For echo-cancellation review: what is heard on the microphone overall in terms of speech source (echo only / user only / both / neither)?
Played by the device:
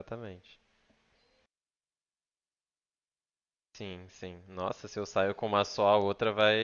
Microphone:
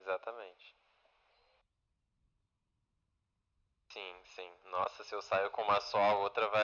echo only